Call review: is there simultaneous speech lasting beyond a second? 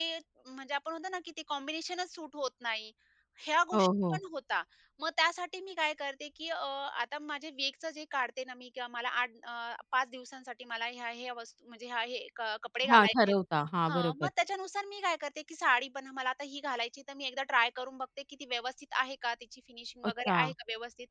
No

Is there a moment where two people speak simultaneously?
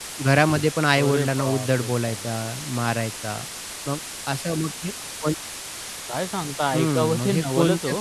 Yes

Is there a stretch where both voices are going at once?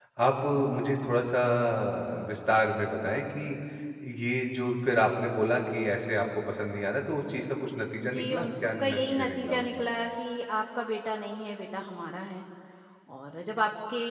Yes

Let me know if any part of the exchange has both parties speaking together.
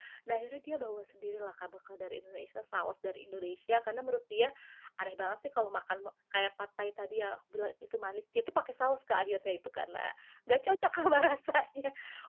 No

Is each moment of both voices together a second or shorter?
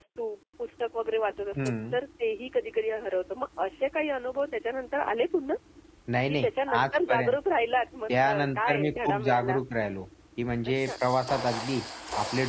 No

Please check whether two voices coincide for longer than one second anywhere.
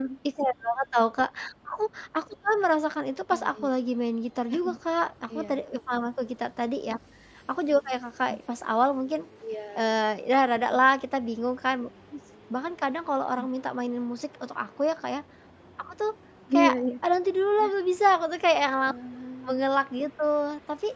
No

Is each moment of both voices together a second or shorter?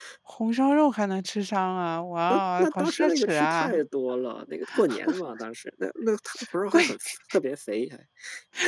No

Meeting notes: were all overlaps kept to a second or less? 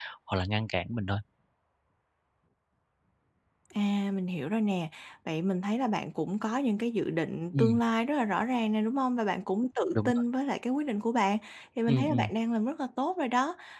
Yes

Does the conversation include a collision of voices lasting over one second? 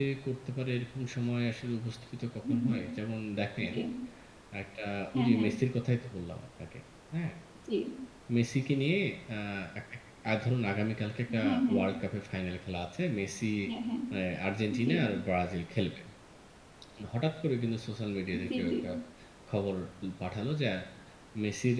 No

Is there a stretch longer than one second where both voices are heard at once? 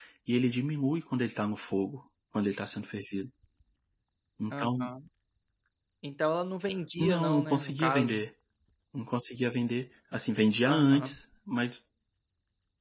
Yes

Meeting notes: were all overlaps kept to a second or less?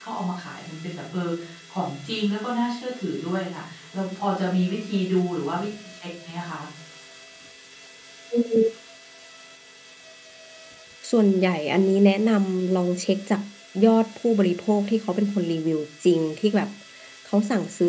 Yes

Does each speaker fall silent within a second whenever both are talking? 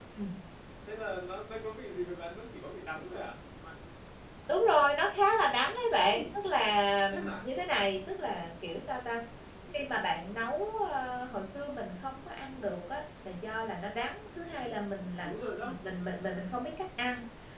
Yes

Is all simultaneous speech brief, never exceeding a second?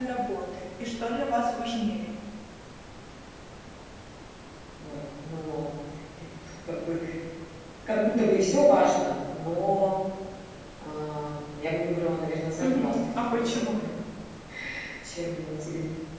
No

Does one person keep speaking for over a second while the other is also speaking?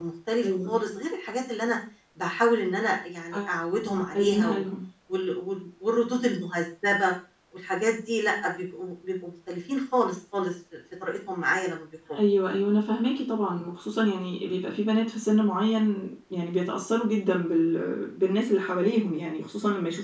No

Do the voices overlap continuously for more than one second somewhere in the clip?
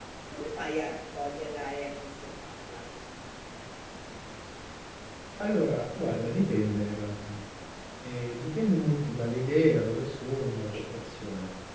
No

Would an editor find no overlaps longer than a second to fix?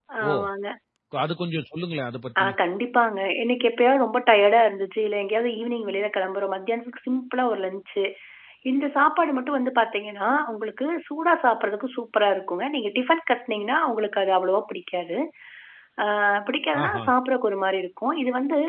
Yes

